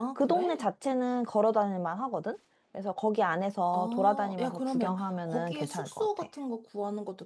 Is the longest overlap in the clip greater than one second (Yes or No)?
Yes